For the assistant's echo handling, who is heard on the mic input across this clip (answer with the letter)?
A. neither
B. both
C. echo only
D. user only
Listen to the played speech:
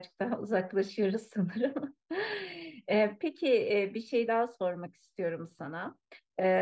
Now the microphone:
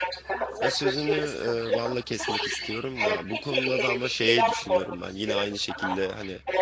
B